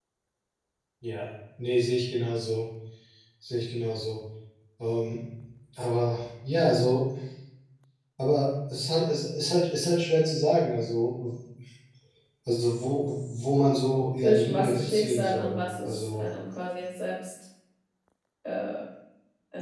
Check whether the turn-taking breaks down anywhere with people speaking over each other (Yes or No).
Yes